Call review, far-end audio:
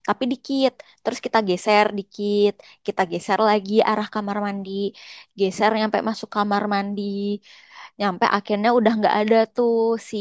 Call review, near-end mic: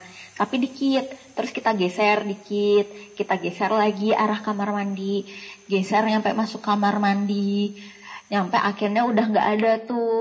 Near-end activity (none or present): none